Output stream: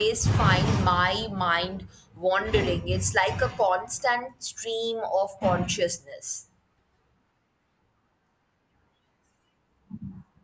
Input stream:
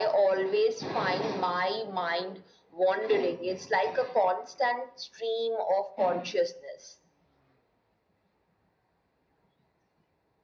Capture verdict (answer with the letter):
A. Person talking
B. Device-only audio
B